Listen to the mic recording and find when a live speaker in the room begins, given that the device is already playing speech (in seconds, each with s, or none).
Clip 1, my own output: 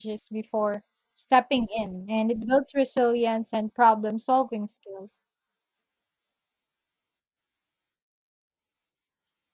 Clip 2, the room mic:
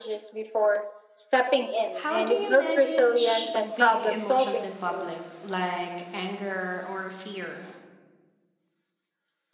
2.0 s